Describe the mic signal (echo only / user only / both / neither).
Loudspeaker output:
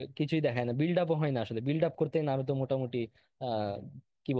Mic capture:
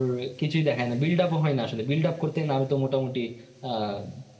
echo only